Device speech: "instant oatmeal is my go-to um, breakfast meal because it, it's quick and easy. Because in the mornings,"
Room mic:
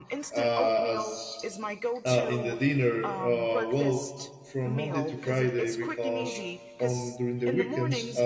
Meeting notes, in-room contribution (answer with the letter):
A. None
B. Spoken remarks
B